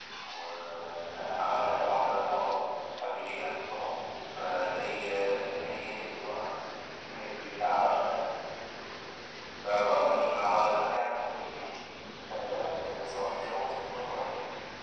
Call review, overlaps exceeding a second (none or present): none